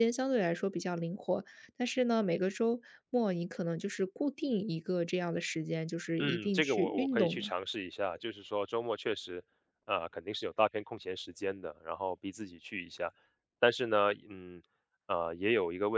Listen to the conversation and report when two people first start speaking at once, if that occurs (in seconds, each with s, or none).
6.2 s